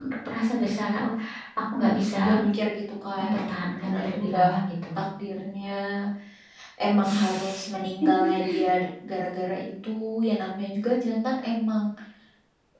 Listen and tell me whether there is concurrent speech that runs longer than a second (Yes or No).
Yes